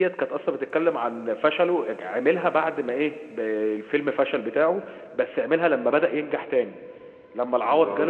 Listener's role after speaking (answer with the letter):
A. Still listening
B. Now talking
A